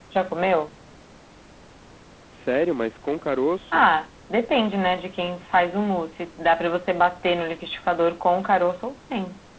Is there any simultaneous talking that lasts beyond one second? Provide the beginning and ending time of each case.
none

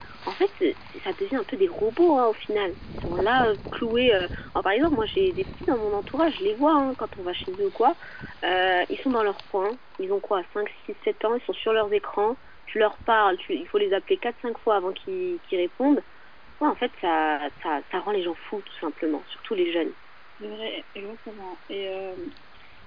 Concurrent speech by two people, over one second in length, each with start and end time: none

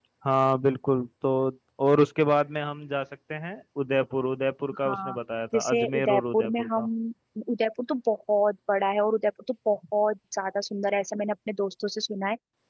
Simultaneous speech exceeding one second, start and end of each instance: 5.5-6.9

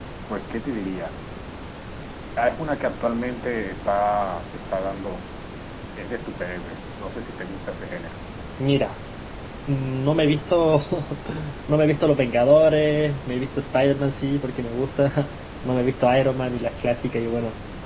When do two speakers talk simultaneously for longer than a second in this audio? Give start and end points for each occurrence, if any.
none

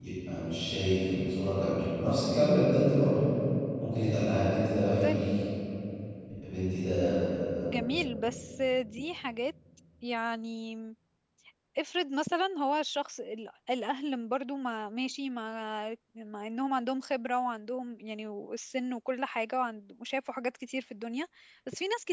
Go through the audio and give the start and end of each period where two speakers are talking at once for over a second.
none

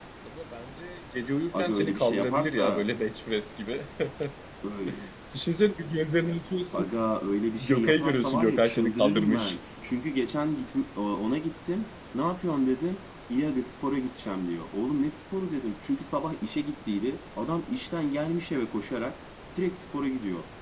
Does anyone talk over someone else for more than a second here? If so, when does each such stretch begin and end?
1.5-2.9, 7.6-9.6

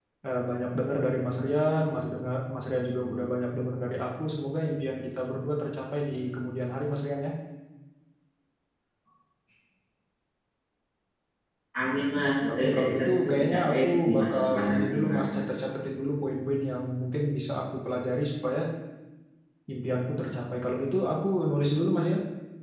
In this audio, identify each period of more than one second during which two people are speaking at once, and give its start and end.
12.5-15.5

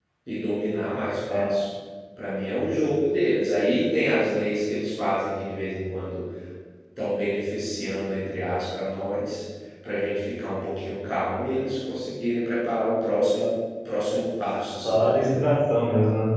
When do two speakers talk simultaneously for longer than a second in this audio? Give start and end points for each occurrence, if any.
none

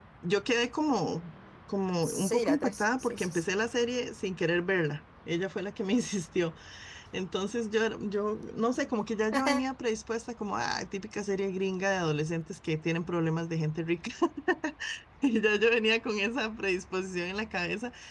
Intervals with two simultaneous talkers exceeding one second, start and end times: 2.0-3.4

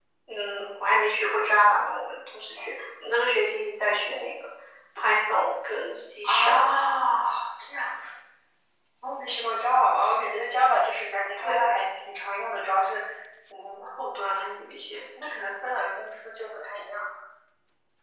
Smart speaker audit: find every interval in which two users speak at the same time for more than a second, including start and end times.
none

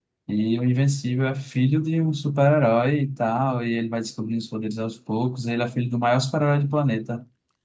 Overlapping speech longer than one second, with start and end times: none

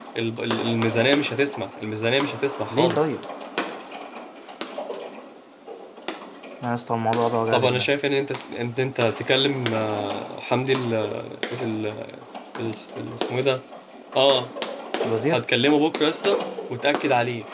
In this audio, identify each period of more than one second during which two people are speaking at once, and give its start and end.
none

